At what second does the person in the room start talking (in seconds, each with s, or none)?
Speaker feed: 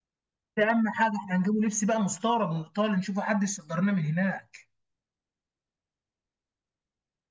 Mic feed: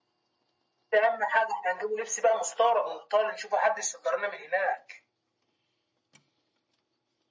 none